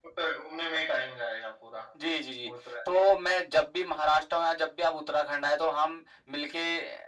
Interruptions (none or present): none